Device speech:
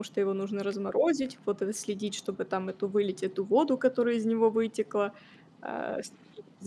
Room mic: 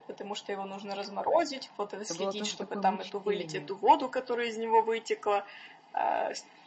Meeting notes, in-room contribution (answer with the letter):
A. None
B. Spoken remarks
B